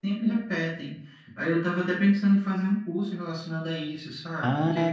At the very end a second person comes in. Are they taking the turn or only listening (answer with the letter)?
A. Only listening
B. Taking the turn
B